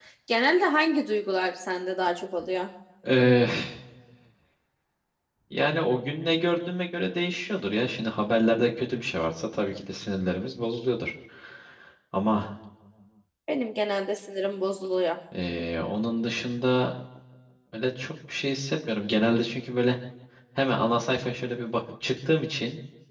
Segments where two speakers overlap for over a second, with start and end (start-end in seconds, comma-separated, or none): none